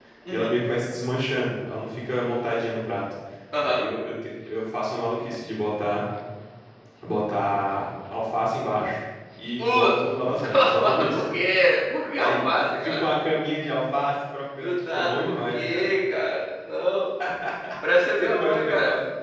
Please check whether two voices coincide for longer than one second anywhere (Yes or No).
Yes